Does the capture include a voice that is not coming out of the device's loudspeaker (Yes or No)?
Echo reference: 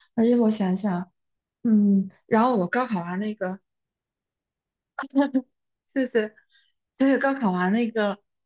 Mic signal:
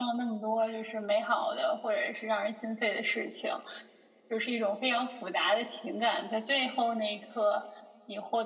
Yes